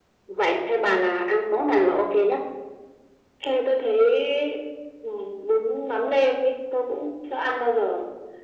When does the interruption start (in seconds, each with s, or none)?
none